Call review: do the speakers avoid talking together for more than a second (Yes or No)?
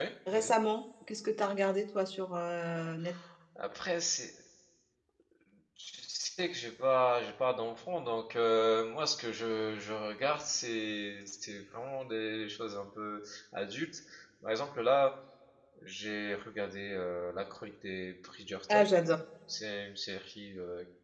Yes